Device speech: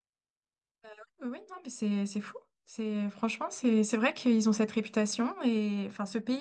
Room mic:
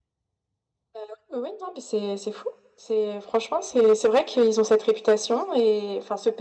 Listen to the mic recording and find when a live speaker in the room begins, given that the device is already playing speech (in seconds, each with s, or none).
none